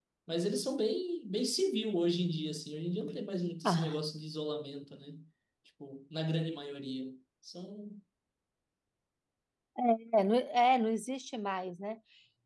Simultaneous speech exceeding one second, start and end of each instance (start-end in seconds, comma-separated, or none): none